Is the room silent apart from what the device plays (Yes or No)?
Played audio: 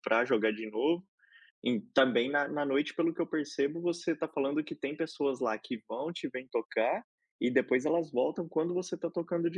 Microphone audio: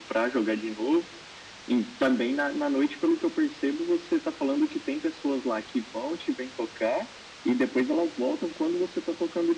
Yes